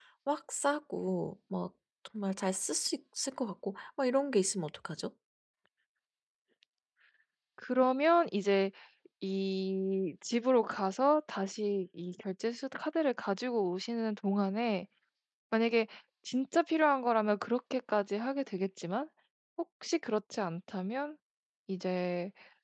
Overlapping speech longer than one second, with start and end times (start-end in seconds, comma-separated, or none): none